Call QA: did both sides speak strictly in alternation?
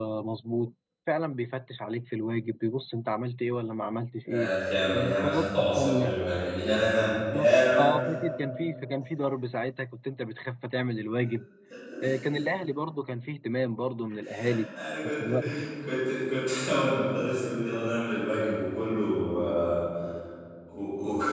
No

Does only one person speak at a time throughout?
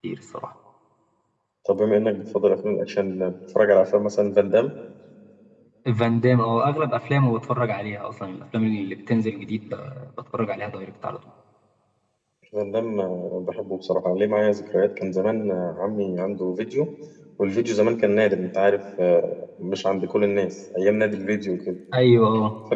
Yes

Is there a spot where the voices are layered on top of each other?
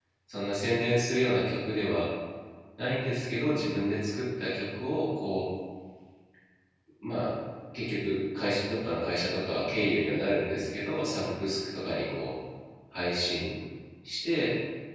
No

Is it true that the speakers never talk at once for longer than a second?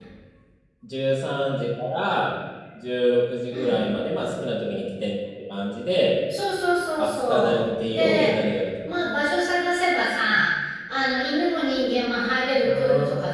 No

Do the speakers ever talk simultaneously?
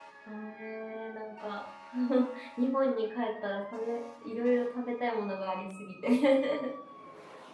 No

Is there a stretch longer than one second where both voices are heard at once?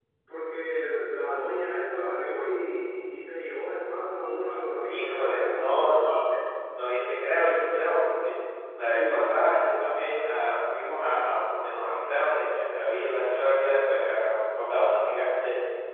Yes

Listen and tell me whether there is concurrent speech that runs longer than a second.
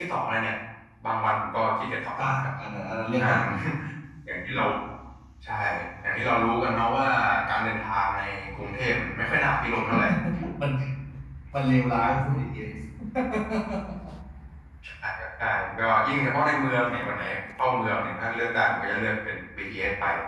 No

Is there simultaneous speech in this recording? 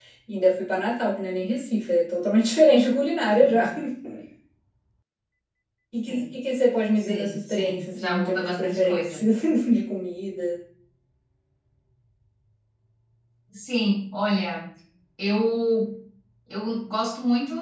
Yes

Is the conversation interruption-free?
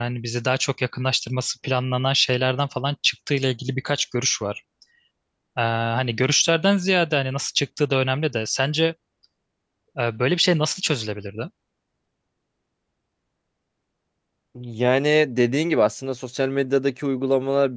Yes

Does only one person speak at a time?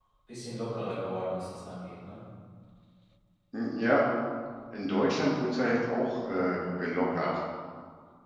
Yes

